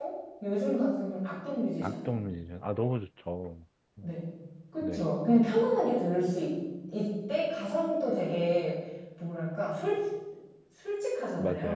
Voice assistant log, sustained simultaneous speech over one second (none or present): none